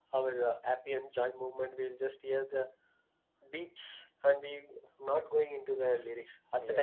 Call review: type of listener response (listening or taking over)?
listening